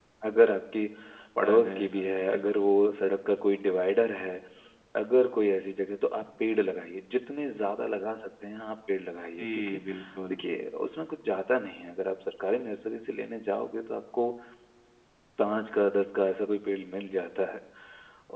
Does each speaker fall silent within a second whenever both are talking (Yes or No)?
No